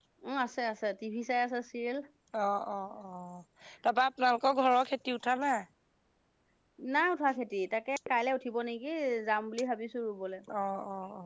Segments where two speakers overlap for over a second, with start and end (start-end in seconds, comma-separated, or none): none